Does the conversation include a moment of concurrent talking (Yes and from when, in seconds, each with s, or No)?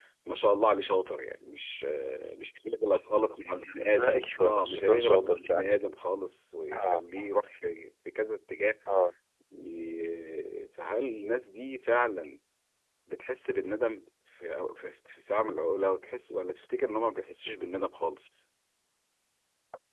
Yes, from 3.9 s